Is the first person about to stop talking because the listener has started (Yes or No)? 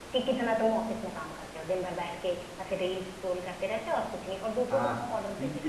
Yes